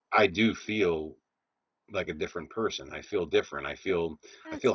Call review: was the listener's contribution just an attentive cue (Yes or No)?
No